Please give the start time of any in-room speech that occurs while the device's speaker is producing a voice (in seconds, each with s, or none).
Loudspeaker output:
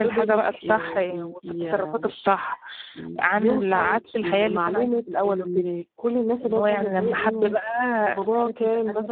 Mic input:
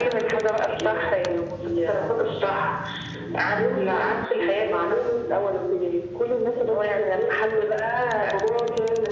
none